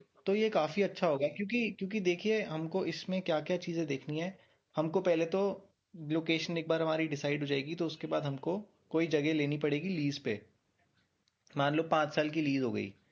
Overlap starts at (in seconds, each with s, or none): none